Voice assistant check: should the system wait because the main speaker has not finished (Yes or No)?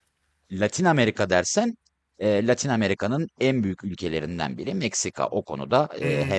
No